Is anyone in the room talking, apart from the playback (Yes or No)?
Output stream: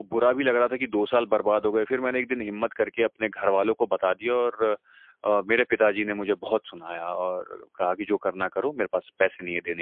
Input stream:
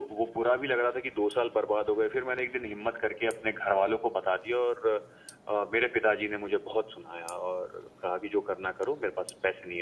No